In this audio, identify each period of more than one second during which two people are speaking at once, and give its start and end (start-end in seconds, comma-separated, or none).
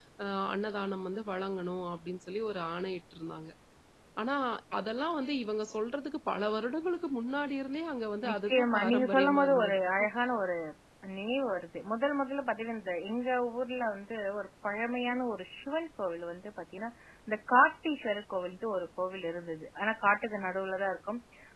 8.3-9.8